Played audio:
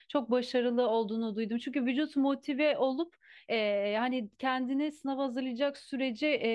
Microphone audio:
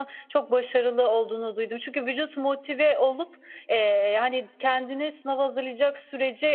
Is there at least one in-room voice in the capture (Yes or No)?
No